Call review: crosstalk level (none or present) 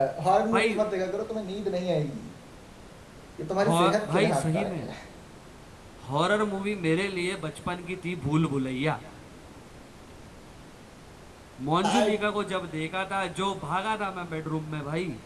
present